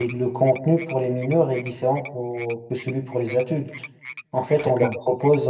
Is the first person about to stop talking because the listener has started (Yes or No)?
No